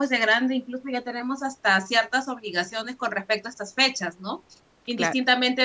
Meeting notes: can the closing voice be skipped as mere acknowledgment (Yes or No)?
Yes